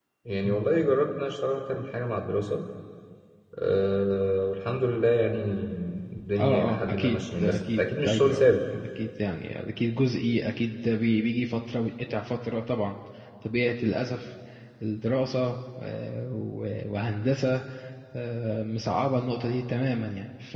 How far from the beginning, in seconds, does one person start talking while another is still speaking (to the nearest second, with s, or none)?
6 s